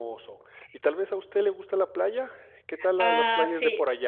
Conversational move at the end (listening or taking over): taking over